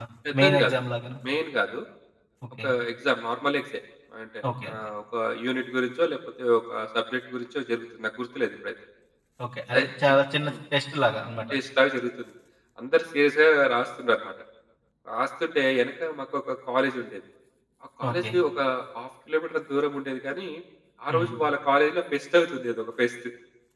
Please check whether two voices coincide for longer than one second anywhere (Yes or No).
No